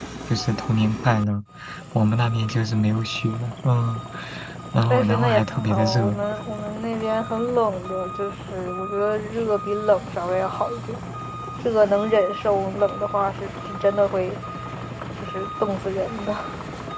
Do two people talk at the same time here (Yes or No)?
Yes